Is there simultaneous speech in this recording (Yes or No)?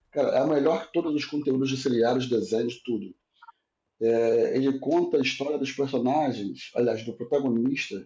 No